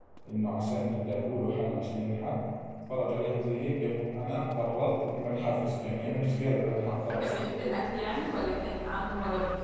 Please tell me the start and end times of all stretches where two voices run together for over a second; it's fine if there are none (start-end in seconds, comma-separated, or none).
none